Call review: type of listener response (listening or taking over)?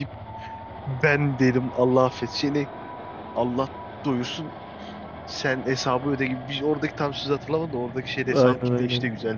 taking over